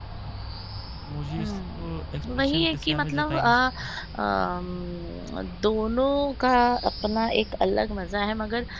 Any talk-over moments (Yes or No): Yes